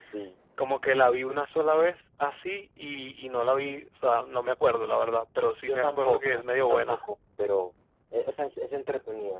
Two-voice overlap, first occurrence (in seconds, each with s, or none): 5.7 s